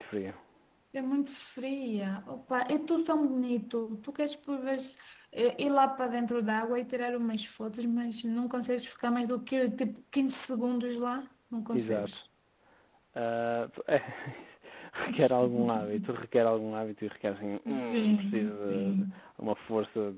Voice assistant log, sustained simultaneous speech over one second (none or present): present